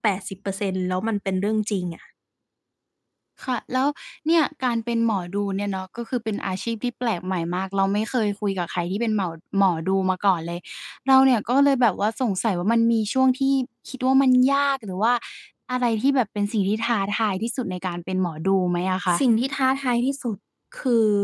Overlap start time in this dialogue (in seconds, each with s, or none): none